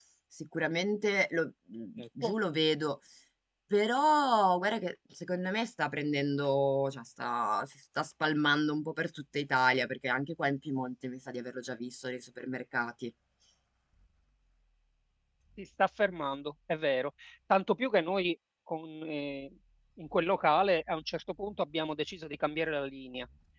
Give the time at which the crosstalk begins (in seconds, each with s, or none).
none